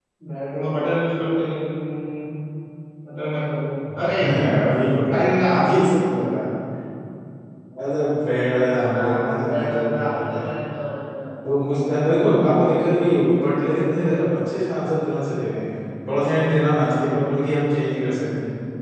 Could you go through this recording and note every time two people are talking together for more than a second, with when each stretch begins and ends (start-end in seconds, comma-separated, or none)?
8.9-10.5